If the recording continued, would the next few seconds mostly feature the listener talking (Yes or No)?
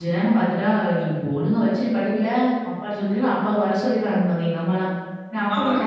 No